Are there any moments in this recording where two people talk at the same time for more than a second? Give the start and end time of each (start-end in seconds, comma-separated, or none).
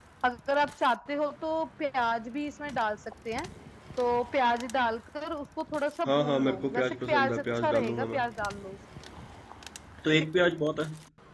6.1-8.2